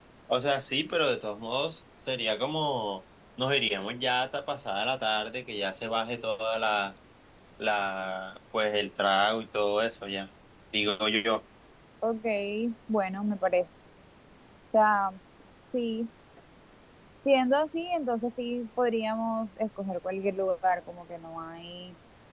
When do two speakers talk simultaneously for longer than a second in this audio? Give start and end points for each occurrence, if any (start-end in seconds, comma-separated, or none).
none